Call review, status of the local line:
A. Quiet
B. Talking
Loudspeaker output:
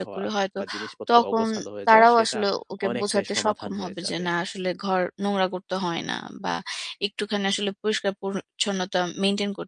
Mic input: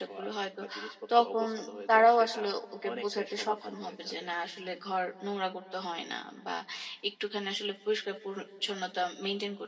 A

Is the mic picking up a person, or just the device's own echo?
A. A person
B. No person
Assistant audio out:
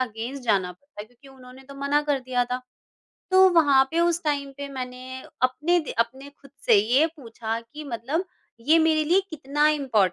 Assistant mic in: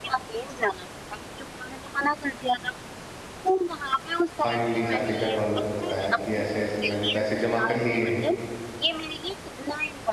A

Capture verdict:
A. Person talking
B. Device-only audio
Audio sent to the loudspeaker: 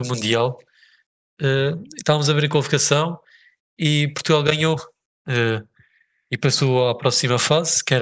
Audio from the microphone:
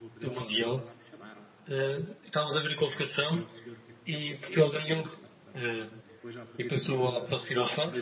A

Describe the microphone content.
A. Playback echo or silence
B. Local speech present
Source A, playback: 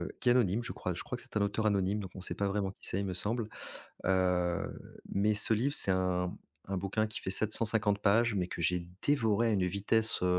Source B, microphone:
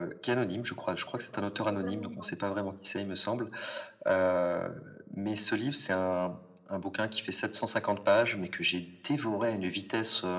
B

